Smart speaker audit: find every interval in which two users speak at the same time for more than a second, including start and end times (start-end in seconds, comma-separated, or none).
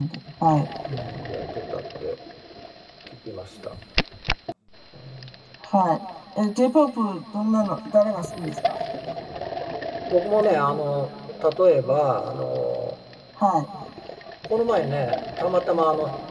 none